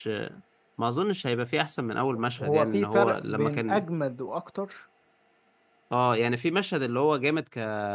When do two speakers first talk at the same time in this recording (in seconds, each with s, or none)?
2.4 s